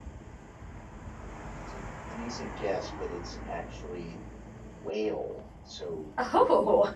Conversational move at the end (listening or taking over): listening